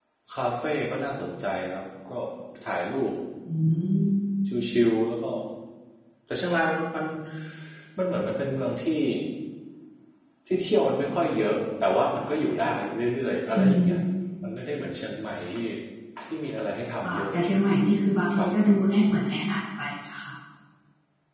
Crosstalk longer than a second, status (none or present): none